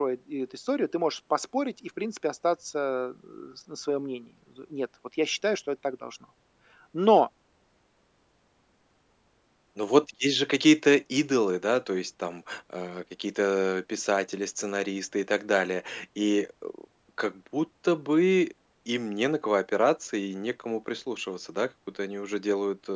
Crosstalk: none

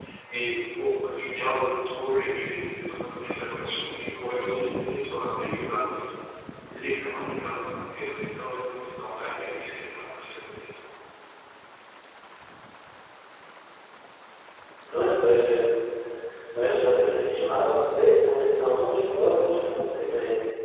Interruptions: none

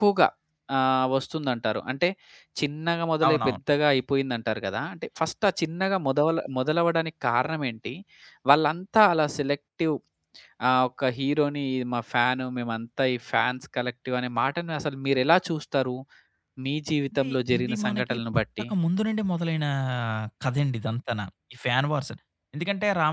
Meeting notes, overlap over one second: present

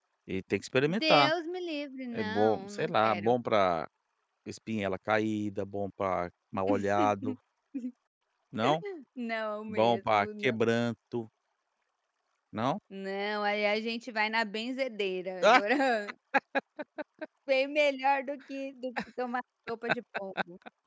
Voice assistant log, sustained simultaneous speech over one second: present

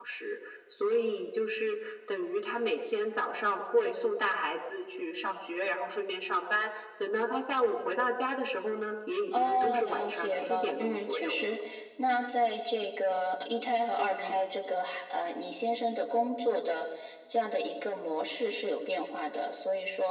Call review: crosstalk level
present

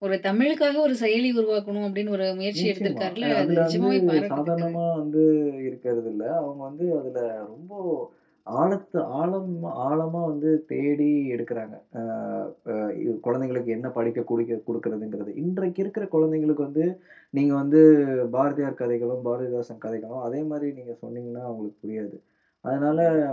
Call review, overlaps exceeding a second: present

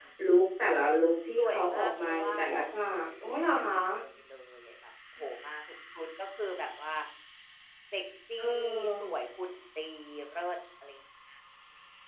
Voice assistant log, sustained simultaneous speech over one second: present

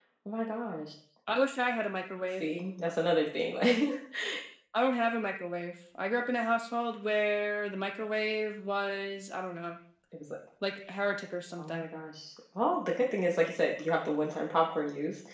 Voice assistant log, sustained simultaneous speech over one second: none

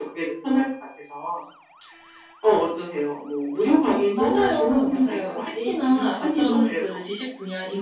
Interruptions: present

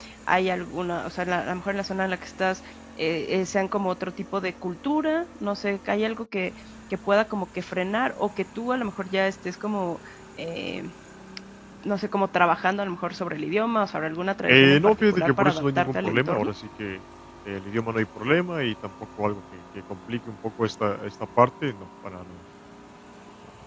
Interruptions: present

